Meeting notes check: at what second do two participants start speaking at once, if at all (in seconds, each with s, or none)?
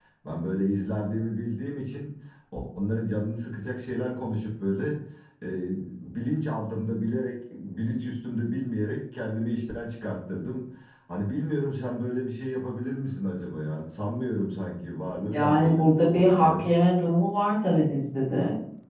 15.3 s